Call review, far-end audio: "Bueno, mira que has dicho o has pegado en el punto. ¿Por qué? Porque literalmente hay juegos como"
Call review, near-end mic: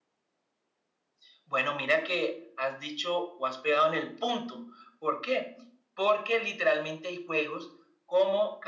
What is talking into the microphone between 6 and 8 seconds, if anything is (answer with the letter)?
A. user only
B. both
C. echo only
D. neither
C